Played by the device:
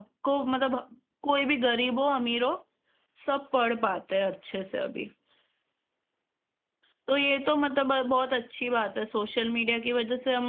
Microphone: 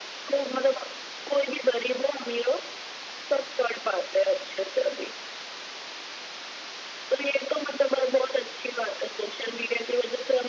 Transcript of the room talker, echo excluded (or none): none